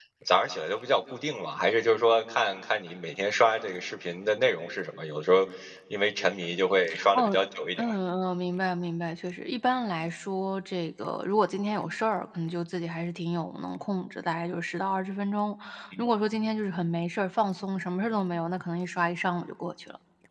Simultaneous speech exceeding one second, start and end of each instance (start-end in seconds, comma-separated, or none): none